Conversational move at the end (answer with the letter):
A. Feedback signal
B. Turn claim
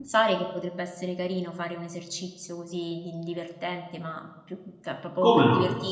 A